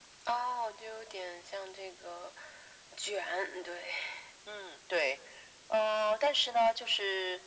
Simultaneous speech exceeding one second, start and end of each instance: none

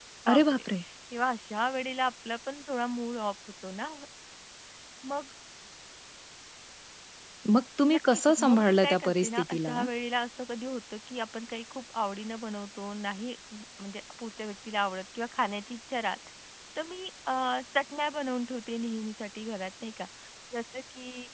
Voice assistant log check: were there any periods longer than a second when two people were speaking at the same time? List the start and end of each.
7.9-9.7

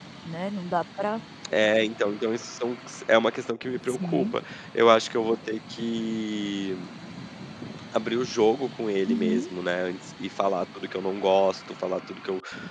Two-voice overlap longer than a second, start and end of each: none

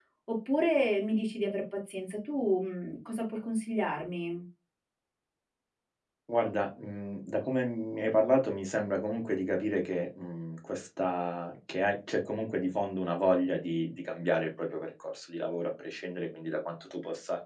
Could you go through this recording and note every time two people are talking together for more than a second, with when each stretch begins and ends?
none

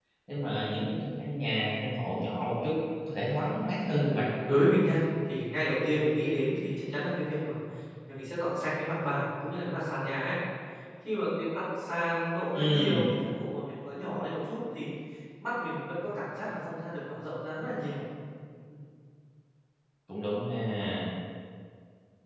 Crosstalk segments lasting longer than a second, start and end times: none

